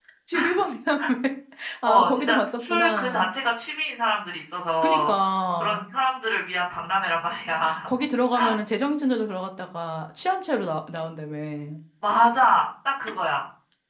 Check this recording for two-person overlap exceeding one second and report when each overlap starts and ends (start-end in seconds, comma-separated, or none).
1.9-3.3